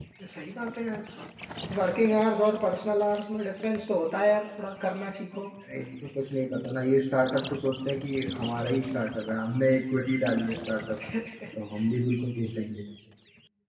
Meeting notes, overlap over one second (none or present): none